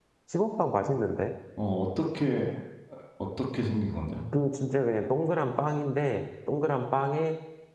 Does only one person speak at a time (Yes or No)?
Yes